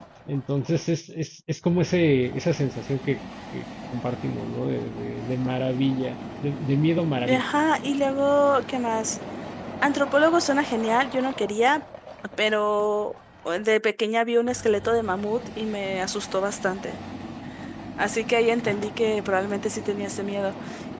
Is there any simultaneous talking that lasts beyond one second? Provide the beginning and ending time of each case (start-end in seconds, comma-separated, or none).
none